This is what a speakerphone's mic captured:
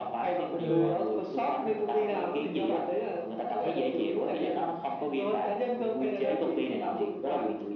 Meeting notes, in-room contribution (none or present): present